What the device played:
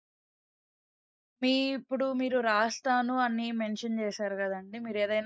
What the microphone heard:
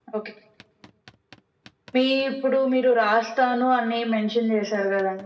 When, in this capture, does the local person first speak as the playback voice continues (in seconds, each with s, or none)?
none